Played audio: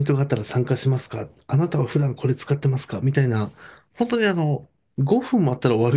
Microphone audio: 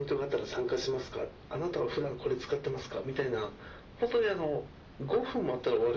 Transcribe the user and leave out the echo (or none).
none